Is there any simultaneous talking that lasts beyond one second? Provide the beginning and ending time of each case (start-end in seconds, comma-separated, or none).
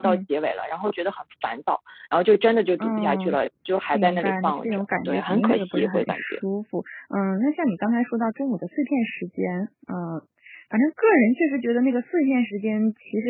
3.9-6.4